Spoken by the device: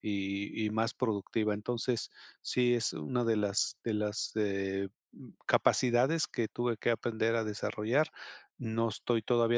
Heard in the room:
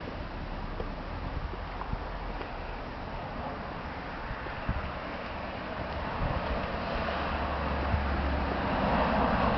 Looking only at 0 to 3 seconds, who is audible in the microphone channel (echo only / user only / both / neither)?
neither